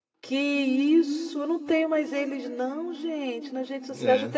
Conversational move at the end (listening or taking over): taking over